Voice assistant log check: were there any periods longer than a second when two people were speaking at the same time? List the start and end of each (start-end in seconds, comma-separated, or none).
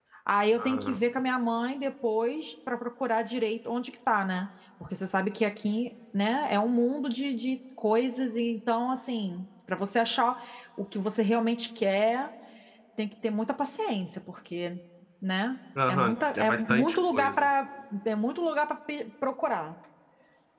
15.9-17.3